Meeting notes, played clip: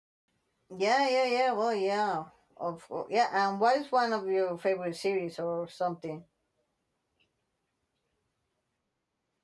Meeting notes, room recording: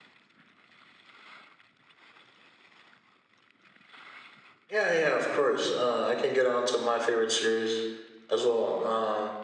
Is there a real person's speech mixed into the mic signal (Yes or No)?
Yes